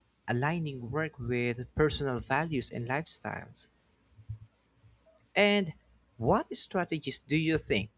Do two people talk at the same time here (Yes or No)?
No